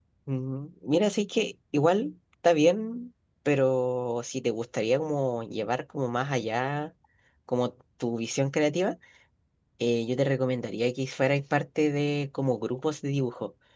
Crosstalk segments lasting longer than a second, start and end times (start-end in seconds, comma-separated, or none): none